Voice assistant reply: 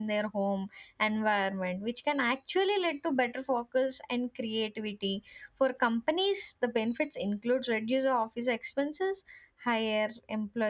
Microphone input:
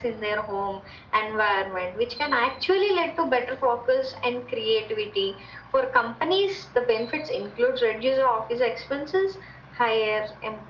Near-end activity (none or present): none